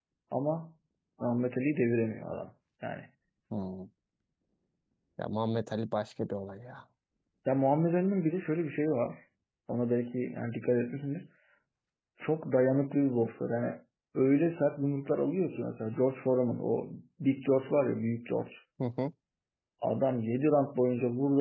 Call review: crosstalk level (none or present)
none